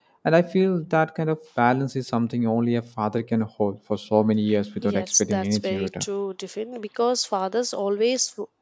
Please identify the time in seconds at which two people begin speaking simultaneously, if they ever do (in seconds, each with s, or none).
4.8 s